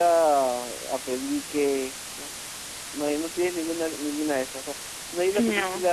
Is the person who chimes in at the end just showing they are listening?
Yes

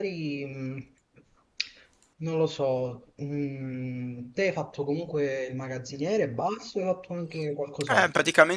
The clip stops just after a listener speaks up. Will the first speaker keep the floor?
No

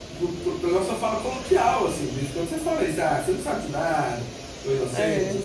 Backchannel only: Yes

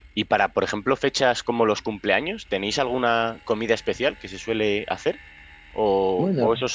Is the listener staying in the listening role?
Yes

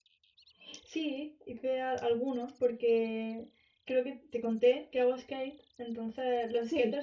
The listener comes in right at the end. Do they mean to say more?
No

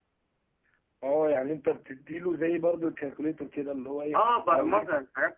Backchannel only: No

